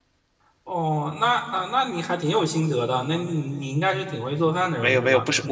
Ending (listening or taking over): taking over